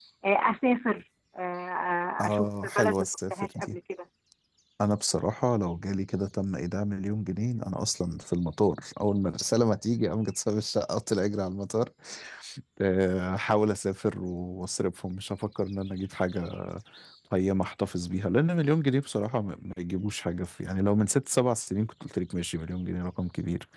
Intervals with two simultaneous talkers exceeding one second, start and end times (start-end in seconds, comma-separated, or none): 2.2-3.8